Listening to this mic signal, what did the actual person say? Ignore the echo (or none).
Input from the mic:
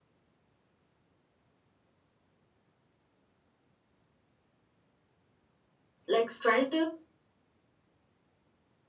like straight up,